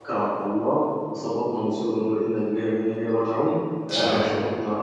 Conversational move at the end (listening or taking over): listening